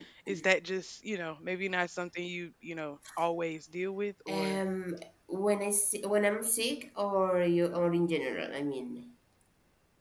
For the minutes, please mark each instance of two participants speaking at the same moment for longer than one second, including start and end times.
none

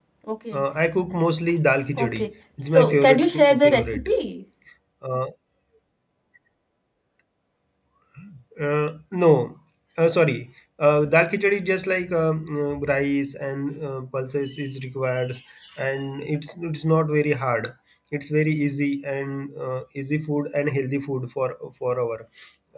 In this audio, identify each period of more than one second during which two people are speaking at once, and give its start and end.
2.6-4.1

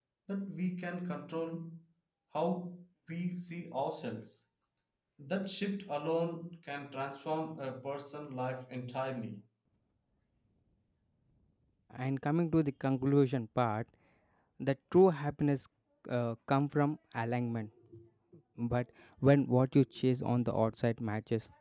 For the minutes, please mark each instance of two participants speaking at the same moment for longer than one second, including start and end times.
none

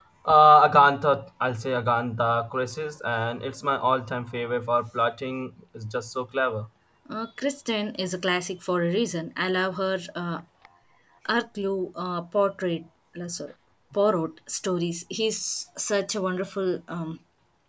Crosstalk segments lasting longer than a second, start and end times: none

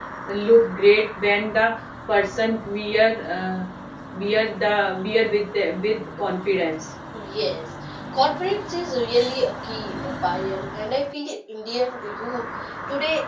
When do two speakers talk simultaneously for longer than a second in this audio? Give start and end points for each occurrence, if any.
none

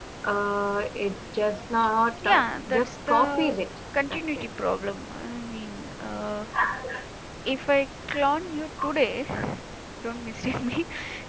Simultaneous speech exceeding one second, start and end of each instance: 2.2-3.6

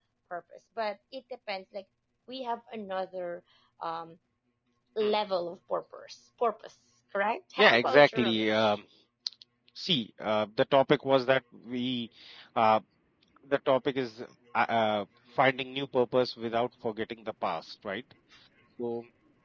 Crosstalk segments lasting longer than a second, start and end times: 7.6-8.8

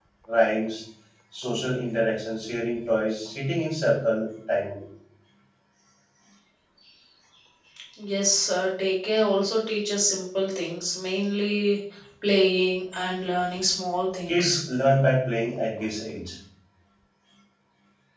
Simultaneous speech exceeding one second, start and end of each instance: none

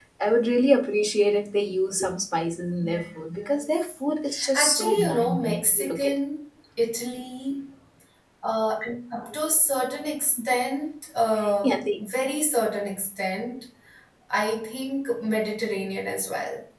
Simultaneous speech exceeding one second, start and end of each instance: 4.5-6.1

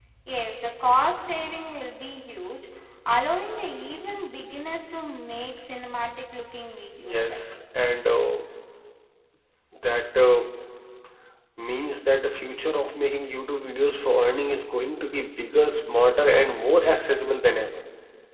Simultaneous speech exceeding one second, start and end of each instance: none

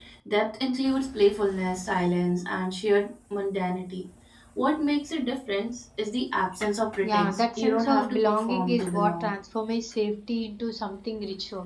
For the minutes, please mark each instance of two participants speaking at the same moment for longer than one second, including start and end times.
7.0-9.3

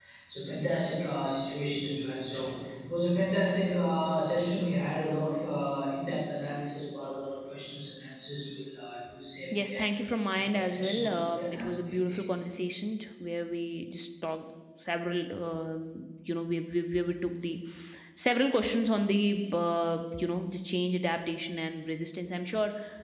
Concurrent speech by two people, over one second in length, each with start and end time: 10.4-12.2

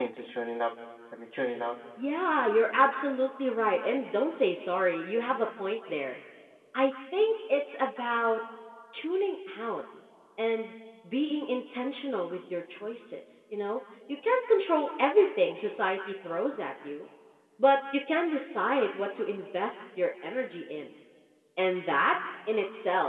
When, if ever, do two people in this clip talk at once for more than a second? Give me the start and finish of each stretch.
none

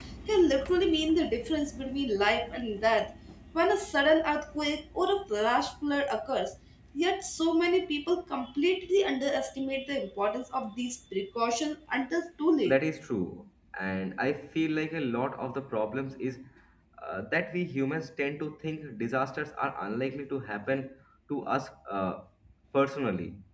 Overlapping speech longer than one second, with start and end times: none

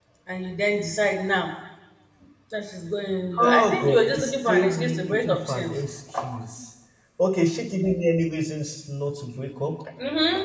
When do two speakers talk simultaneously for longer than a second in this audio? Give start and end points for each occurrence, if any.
3.4-5.7

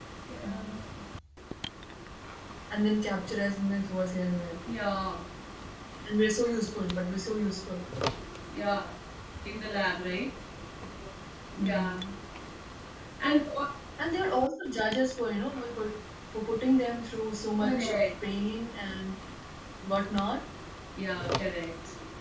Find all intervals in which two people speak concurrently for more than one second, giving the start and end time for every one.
none

